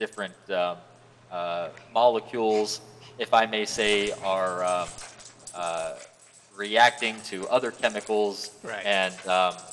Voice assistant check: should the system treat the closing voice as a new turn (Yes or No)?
No